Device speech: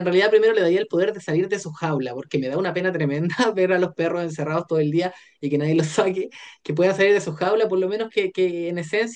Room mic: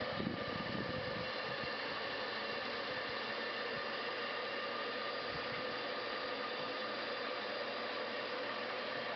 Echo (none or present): none